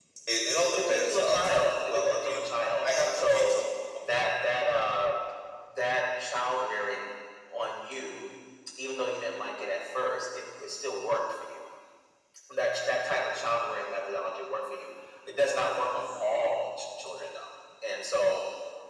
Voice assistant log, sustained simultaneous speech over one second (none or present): present